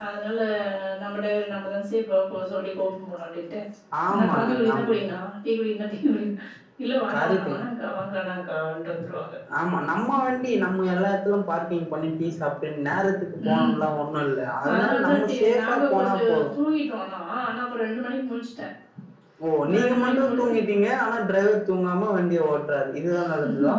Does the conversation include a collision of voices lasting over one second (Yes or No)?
Yes